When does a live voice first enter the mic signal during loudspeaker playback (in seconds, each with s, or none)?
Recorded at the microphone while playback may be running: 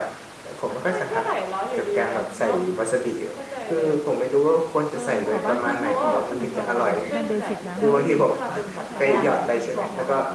4.9 s